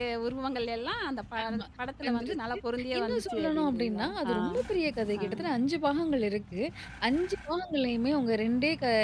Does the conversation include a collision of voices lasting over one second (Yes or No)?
Yes